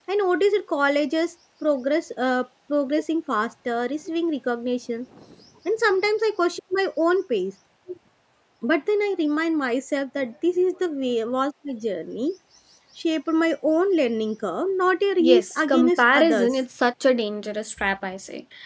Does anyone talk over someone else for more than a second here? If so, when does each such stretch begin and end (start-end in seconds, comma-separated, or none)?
15.2-16.5